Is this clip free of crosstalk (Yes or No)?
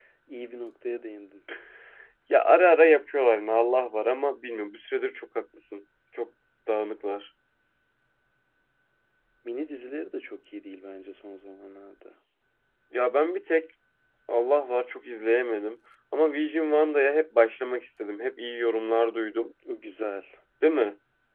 Yes